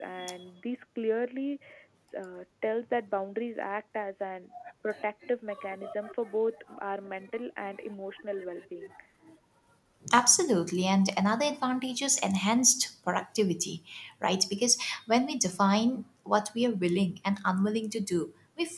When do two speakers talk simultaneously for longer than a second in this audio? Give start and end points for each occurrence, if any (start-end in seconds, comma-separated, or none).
none